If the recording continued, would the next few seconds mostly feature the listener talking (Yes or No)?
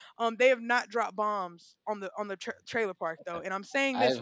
No